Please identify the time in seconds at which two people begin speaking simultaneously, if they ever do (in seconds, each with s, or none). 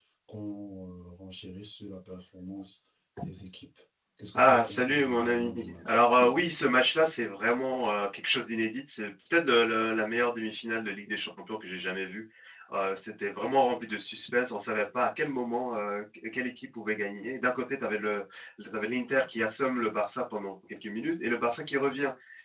4.4 s